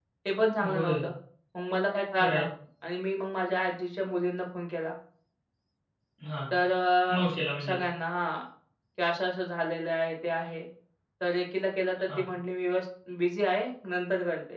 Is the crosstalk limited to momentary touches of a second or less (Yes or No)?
Yes